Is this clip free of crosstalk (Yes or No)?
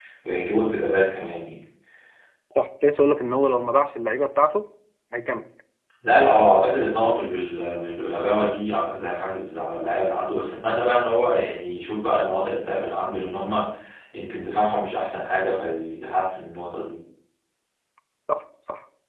Yes